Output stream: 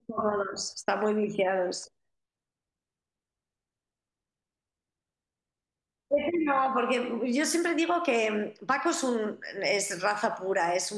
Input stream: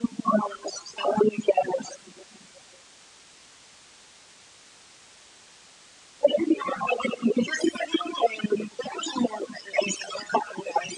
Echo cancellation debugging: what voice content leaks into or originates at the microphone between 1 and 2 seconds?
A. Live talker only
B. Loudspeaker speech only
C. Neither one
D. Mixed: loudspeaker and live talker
B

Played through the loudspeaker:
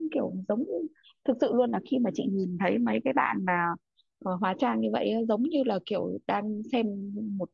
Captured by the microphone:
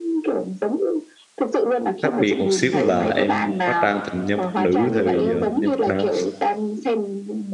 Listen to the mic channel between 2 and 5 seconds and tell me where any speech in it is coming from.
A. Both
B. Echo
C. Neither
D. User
A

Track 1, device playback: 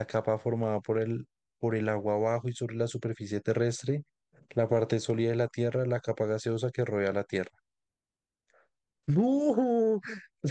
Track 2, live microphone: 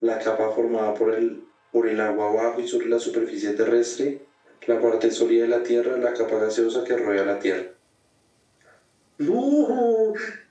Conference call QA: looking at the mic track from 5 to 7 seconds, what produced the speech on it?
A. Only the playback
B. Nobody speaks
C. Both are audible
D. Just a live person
A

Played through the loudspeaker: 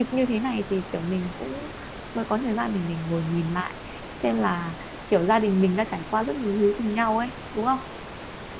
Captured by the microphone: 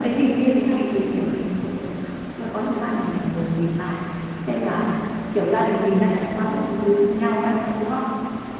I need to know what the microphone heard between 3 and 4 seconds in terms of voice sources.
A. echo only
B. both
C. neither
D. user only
A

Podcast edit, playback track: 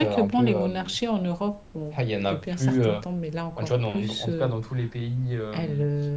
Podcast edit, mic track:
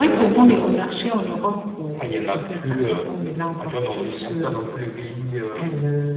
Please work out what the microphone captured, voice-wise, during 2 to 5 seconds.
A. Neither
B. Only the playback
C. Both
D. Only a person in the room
B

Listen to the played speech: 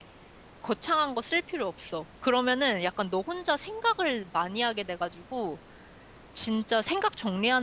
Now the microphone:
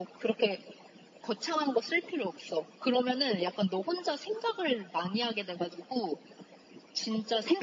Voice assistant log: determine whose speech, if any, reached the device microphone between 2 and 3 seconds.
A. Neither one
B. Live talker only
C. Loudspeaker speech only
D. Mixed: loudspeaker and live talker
C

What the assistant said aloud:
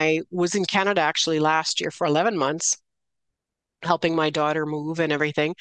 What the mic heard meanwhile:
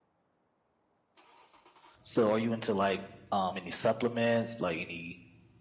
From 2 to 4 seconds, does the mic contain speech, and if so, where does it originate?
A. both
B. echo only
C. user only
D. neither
C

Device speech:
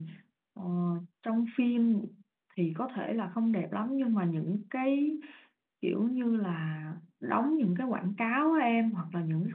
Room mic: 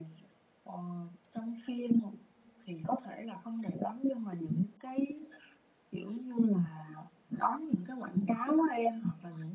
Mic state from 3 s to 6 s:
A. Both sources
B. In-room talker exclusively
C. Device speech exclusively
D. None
C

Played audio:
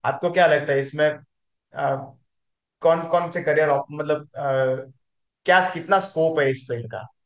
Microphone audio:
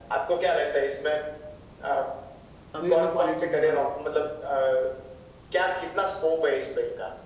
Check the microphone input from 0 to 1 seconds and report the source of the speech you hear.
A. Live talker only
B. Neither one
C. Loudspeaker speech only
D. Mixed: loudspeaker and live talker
C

